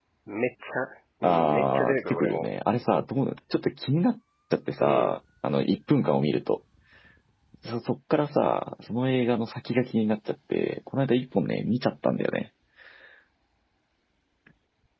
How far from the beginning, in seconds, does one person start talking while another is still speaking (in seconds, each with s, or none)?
1.2 s